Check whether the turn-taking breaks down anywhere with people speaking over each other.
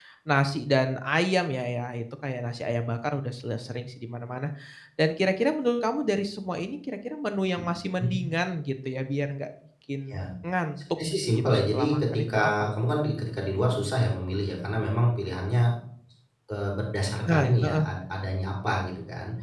Yes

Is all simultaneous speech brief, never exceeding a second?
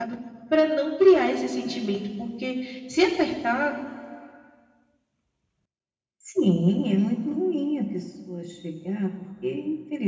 Yes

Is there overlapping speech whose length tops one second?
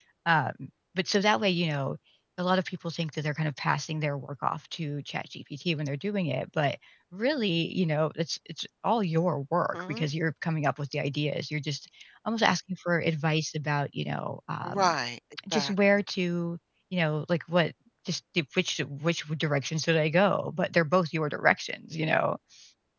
No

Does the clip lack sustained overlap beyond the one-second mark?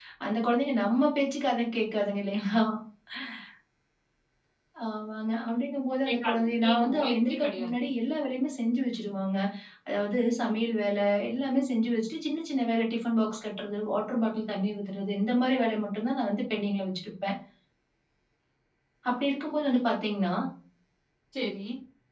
No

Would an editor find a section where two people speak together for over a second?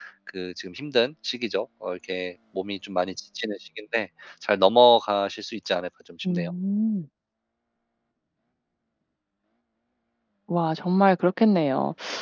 No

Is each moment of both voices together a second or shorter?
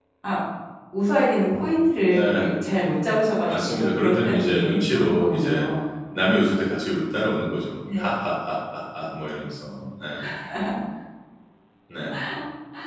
No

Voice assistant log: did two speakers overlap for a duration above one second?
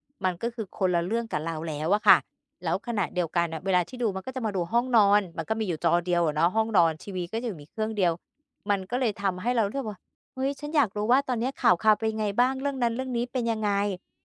No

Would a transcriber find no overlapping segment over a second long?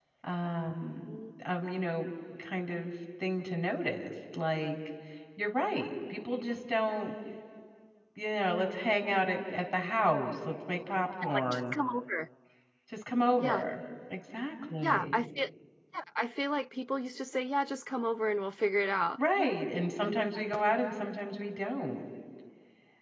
Yes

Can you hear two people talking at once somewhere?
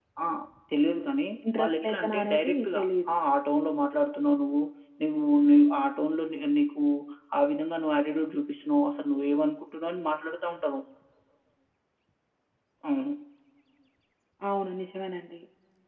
Yes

